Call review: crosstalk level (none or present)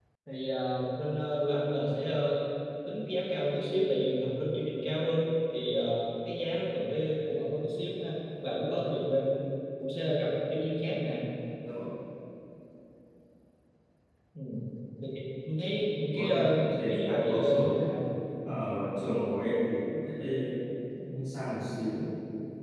present